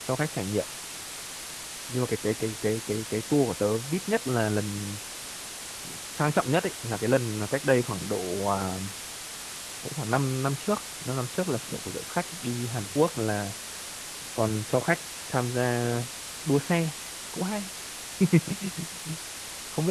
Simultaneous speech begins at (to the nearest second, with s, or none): none